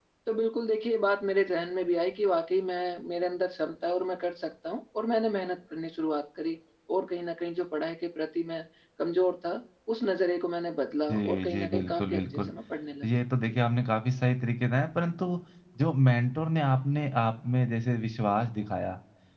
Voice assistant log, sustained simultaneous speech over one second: present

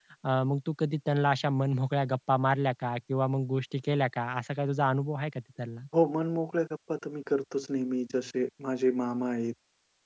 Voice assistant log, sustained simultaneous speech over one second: none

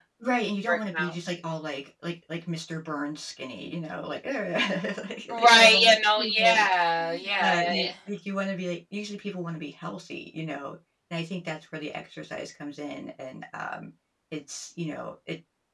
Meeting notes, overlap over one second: present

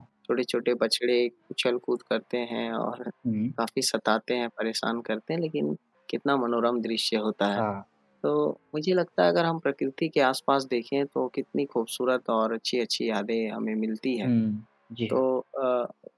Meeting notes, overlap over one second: none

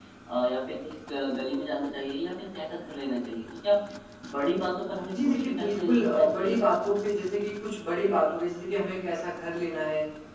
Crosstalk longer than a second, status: present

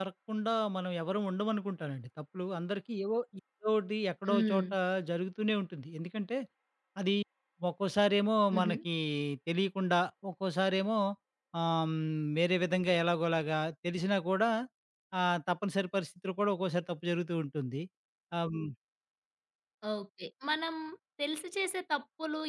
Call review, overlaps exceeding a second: none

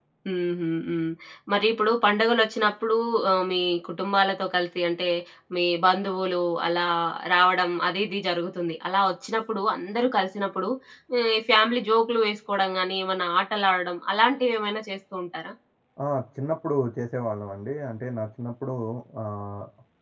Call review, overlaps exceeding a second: none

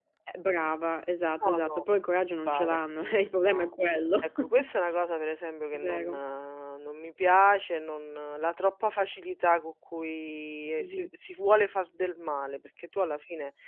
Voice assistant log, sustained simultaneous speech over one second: none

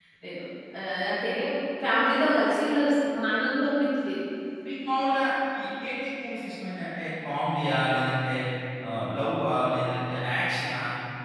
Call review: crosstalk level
none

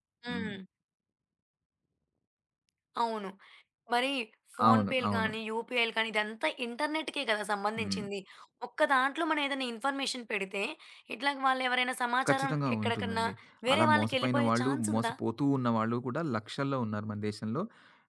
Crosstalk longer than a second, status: present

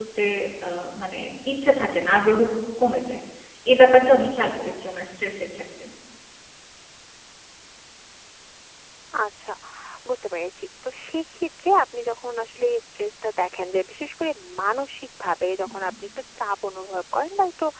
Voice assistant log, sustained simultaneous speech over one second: none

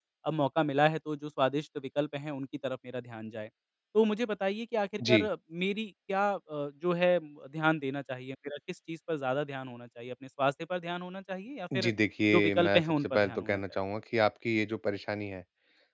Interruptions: present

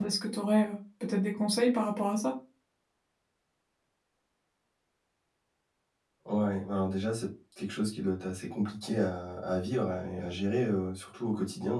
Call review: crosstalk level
none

